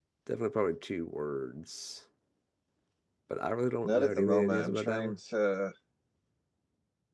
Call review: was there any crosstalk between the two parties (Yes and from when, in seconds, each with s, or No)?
Yes, from 3.8 s